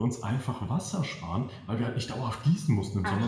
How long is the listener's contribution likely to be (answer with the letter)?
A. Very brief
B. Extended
A